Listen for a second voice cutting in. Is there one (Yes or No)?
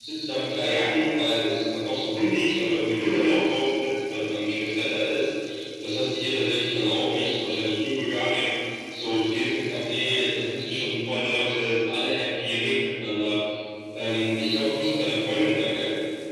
No